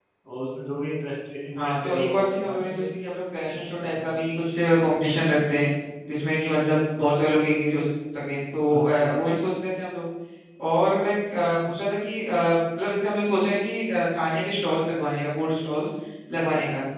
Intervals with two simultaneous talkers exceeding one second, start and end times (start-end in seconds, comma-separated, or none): 1.6-2.8